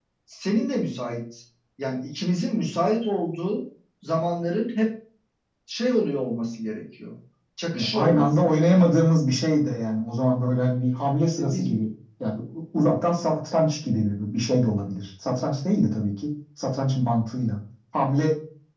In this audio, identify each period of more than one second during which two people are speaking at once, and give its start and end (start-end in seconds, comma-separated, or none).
7.7-8.9